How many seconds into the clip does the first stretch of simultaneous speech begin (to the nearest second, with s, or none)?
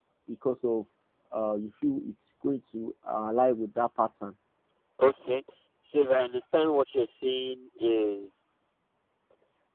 none